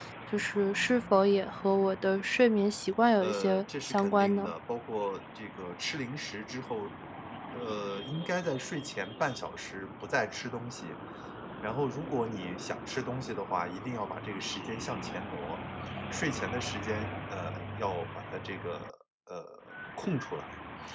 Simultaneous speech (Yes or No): Yes